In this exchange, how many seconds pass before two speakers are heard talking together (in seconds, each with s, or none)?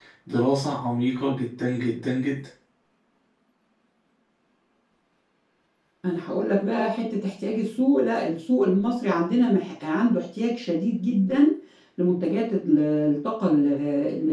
none